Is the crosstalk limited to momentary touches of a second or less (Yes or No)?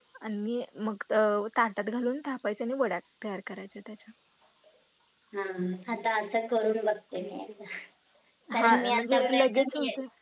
No